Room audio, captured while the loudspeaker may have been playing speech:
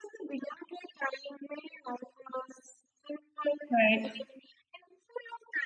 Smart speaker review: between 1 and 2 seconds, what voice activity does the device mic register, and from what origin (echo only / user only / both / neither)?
echo only